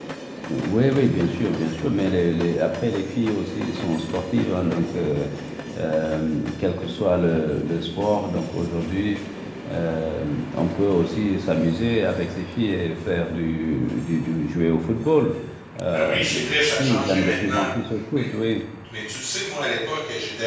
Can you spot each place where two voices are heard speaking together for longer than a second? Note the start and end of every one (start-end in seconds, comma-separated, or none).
15.9-17.7